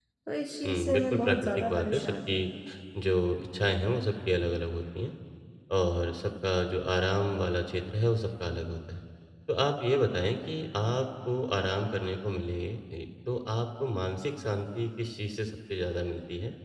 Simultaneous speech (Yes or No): Yes